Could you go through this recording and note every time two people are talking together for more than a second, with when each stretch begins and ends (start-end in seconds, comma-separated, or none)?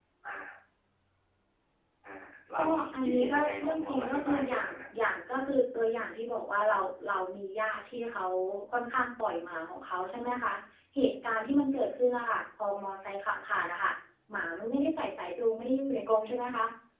2.6-4.8